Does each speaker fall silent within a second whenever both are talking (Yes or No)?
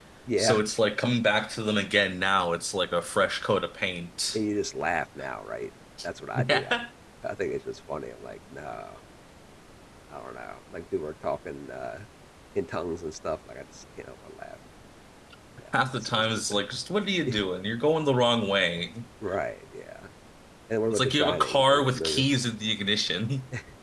No